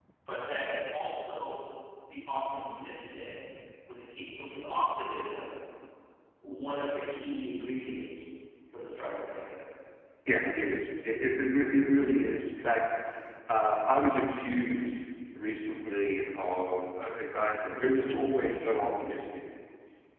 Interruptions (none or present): none